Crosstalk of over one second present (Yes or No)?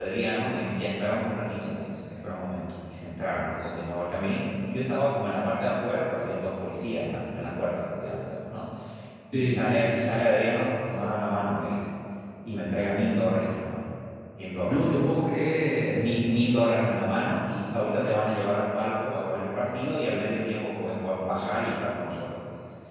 No